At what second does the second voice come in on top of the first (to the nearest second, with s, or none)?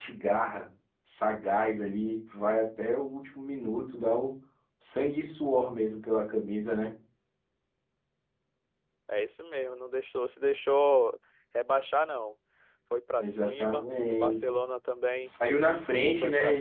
13 s